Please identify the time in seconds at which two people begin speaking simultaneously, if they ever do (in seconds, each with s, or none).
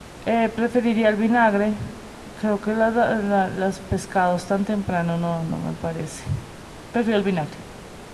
none